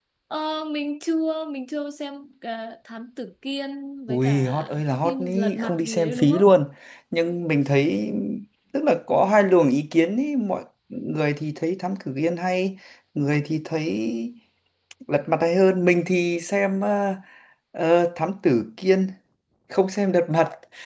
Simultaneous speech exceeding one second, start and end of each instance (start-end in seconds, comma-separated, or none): 4.1-6.5